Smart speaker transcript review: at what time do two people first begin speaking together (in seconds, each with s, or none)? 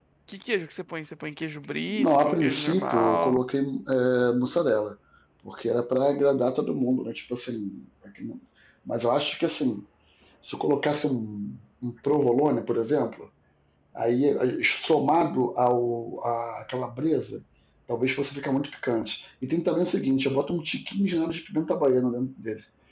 1.9 s